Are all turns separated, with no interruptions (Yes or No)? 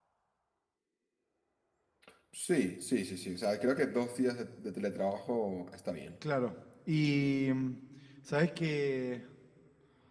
Yes